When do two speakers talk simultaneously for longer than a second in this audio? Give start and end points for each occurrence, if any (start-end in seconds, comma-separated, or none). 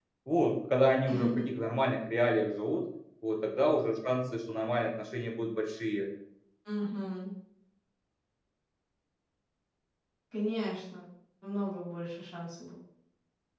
none